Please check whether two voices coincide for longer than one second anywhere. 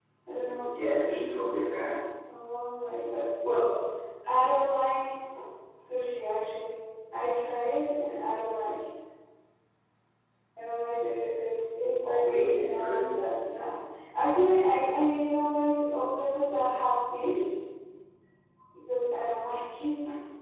Yes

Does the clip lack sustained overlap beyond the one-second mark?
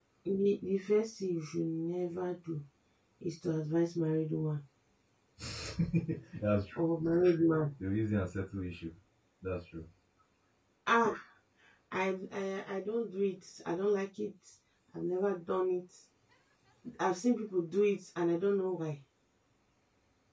Yes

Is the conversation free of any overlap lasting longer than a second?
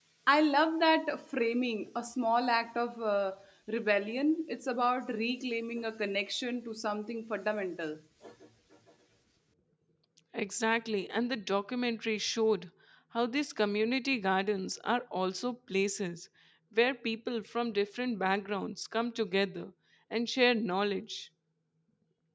Yes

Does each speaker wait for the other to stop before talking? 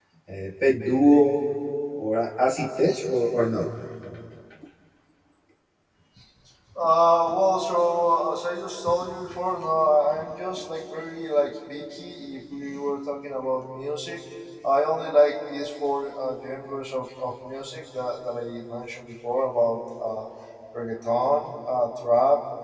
Yes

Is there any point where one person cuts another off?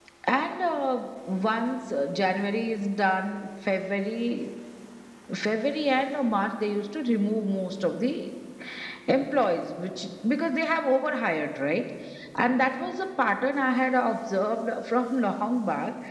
No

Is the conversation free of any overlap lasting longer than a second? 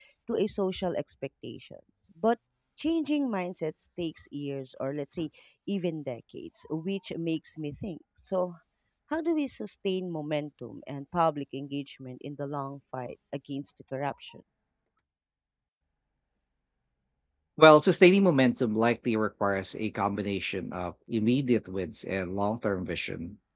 Yes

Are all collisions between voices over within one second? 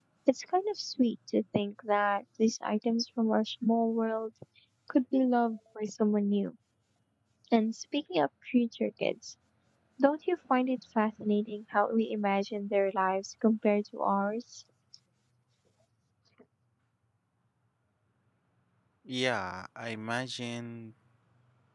Yes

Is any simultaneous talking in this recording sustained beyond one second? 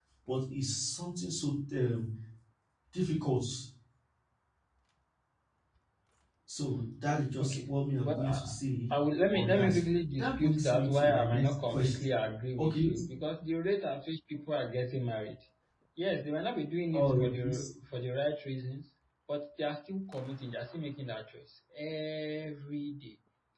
Yes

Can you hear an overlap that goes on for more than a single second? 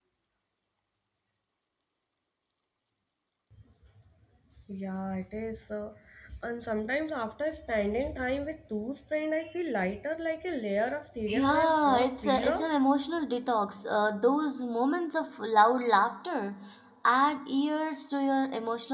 Yes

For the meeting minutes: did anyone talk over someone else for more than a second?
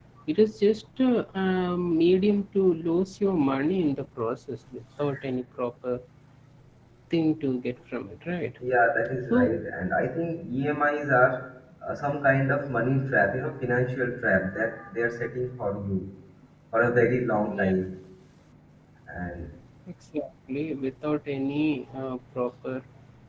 No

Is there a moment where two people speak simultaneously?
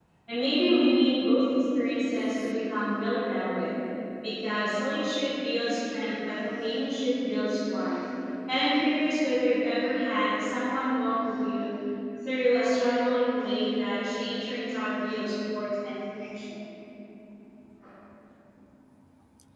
No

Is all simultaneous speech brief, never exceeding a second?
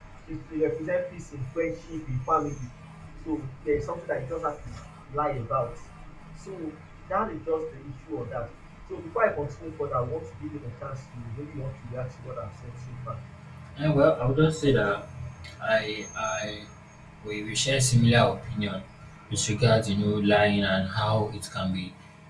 Yes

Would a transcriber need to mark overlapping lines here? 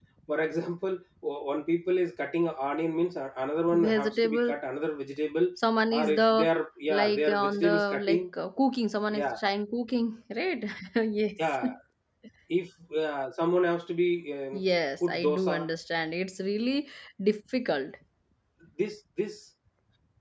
Yes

